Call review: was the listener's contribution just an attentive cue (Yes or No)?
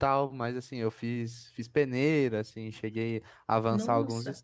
Yes